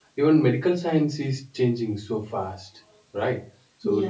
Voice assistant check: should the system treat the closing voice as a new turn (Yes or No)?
No